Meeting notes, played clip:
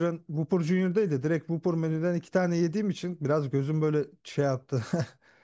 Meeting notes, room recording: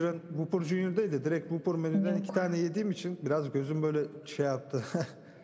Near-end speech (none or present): present